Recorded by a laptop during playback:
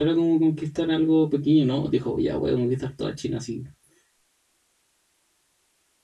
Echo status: none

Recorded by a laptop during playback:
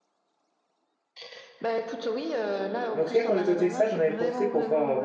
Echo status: present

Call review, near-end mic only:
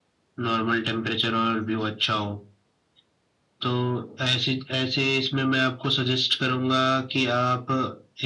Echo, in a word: present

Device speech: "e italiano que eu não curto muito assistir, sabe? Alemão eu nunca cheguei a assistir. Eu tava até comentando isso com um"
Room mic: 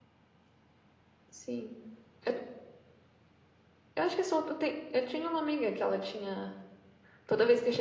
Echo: none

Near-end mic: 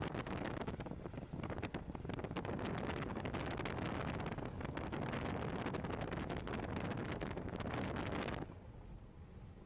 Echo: none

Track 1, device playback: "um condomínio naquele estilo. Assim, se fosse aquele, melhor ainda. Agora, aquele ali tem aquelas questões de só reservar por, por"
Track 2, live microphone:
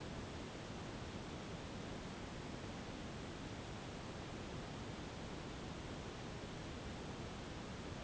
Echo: none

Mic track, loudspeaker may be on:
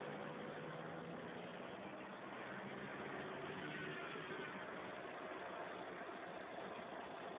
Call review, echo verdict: none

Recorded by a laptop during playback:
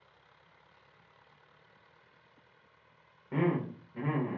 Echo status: none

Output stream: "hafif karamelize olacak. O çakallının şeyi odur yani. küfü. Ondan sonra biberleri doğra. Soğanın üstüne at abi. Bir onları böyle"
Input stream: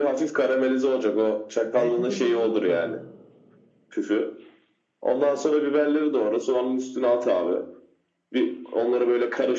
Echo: present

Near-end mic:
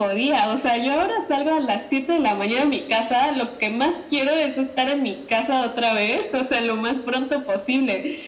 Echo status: present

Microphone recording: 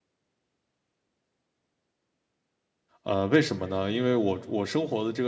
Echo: none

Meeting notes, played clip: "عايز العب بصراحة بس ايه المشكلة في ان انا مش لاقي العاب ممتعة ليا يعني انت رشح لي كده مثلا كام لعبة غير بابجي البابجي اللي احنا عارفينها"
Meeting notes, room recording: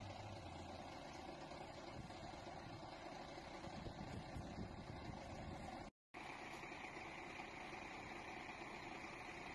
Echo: none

